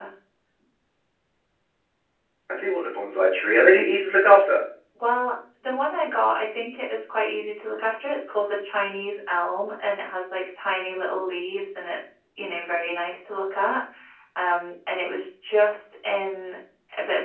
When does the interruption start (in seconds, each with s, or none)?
none